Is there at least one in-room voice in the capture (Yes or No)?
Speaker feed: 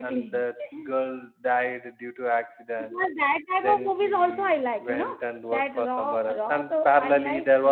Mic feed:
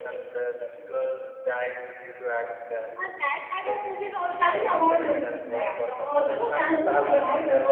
Yes